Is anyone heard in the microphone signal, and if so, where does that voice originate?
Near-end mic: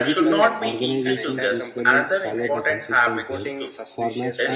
both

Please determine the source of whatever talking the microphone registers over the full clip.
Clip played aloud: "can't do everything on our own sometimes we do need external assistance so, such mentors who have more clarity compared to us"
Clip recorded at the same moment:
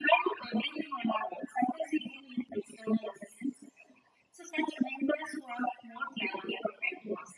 echo only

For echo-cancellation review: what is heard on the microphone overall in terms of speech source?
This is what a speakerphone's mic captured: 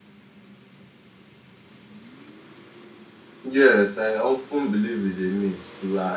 user only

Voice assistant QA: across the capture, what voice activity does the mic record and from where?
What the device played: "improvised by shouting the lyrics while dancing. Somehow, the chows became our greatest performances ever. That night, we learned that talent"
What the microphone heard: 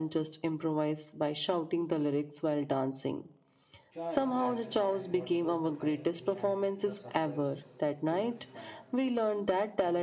both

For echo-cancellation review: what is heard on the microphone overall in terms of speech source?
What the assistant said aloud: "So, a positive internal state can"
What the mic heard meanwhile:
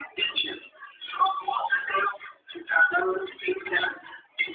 echo only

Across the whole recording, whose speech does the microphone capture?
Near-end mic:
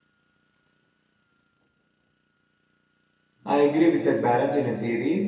user only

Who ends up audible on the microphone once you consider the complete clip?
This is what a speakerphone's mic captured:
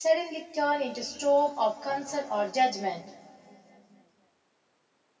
user only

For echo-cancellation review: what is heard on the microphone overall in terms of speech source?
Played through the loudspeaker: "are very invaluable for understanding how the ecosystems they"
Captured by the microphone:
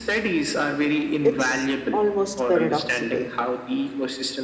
both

